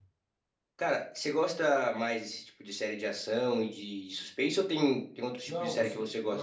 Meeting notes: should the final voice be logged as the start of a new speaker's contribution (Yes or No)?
Yes